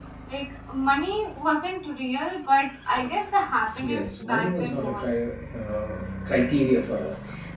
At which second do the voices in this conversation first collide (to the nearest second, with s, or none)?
4 s